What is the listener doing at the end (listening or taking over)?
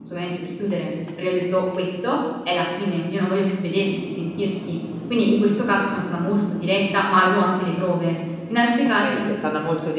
taking over